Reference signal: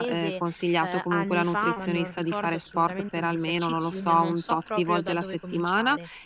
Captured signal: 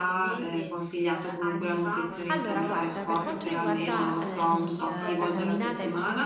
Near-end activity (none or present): present